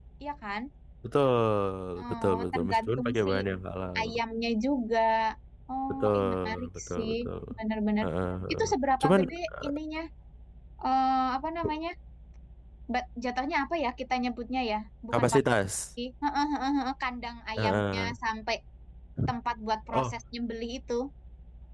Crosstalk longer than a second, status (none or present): present